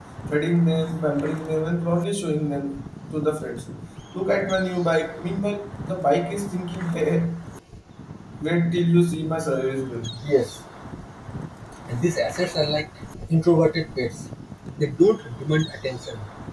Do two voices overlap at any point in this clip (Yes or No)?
No